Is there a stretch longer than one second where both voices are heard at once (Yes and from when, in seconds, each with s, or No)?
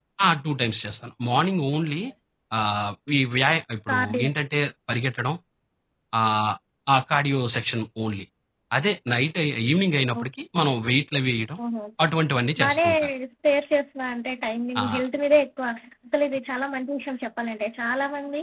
No